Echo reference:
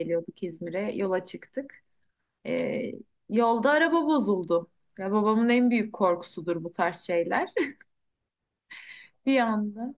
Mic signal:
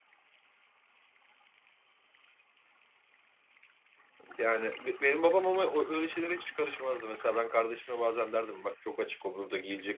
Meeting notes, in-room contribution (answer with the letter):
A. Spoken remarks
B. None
A